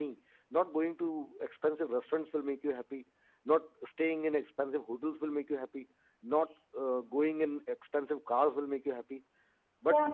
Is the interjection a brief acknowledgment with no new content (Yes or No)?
Yes